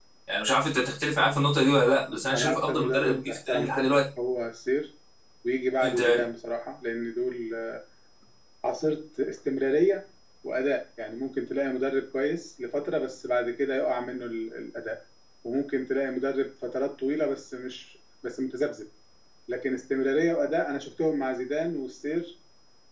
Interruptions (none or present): present